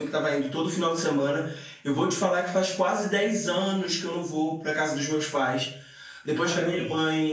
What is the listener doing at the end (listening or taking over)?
listening